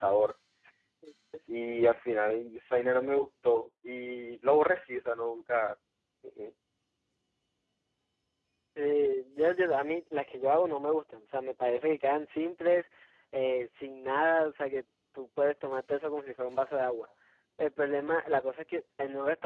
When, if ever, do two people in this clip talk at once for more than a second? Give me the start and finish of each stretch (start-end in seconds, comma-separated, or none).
none